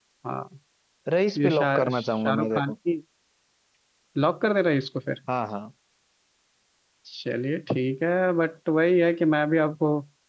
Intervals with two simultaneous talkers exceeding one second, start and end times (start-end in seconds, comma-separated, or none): 1.4-2.7